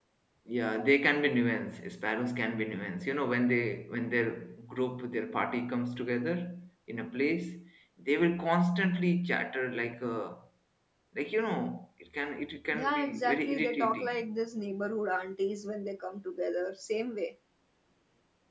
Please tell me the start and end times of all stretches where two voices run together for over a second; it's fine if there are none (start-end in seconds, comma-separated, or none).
12.7-14.1